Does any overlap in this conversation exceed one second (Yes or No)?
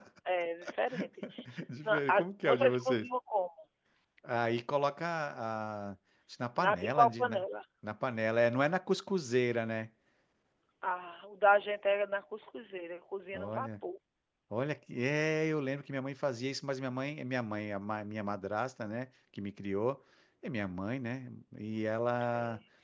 Yes